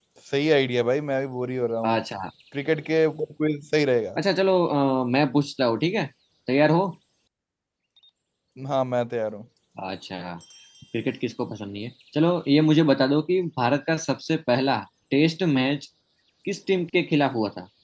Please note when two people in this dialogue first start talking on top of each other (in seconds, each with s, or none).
none